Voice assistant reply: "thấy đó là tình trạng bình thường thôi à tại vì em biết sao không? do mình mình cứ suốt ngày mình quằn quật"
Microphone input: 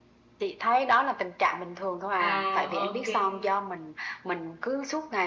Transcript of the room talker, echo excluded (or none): à ok